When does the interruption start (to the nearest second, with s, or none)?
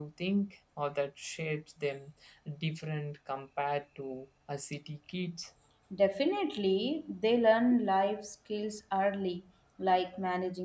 none